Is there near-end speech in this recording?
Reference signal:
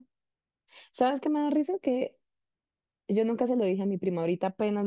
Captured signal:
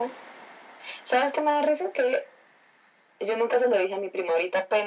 No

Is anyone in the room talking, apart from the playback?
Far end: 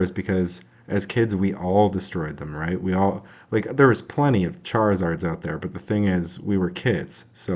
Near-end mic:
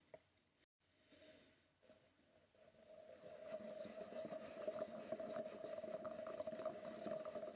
No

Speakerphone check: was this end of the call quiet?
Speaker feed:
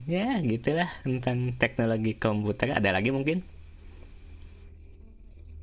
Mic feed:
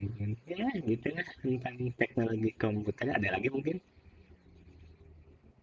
Yes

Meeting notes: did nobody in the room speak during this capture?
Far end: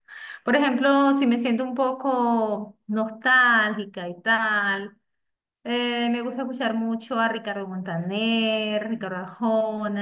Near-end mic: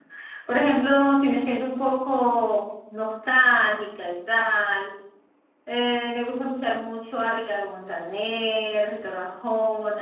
Yes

